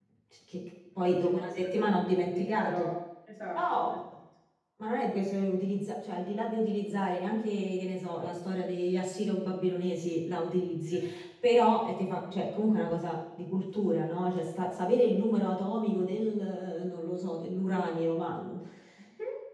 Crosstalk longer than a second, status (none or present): present